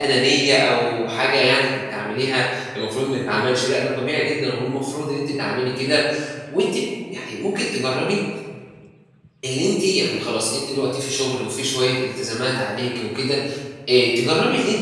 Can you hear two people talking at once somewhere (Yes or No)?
No